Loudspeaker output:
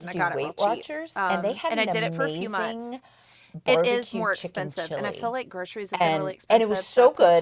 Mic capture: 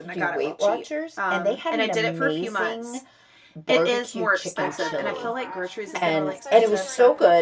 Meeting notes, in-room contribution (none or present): present